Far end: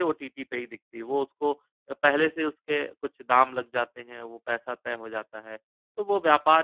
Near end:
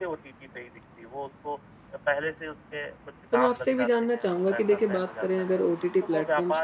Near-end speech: present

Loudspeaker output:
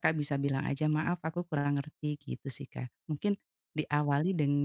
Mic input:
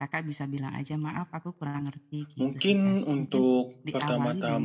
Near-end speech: present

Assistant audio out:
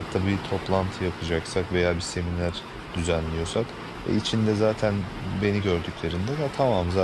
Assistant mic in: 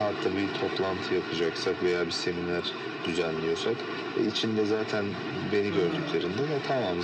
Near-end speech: present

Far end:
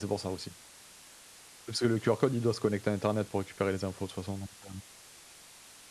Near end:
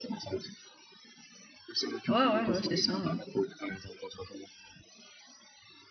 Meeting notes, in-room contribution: present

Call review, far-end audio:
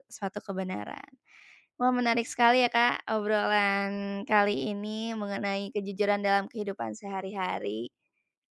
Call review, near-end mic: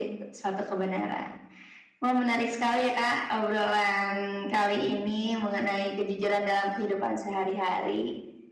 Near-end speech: none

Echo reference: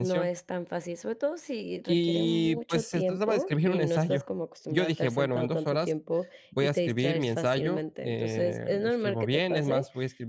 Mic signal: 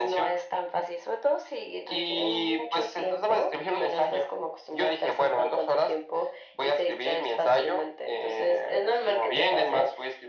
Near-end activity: none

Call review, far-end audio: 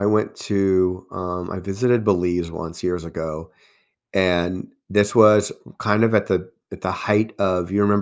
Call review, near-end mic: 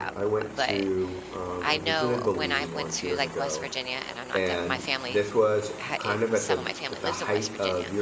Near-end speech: present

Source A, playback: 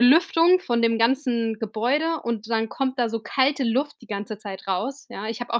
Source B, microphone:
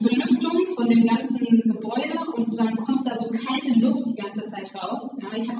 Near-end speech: none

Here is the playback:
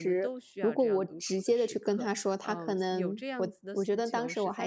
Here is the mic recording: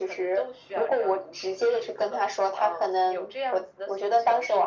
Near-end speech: none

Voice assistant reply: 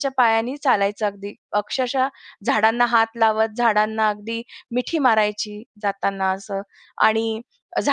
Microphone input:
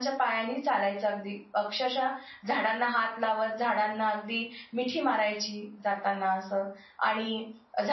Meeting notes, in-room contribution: none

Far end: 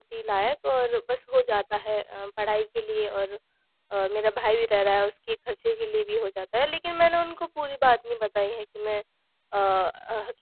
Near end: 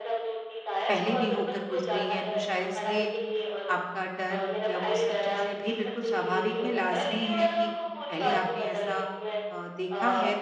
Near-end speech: present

